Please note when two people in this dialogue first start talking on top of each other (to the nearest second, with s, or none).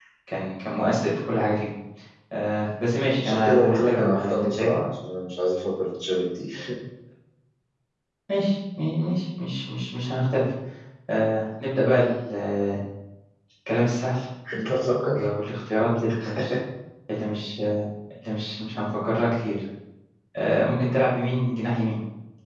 3 s